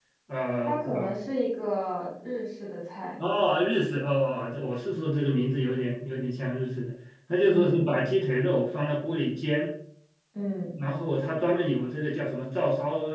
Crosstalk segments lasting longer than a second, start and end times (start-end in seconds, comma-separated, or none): none